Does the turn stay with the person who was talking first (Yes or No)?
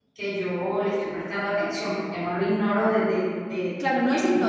No